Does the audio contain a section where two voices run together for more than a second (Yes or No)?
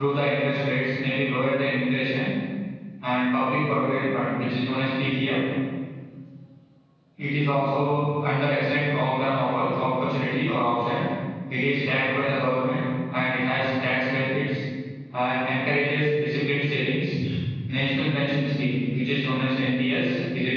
No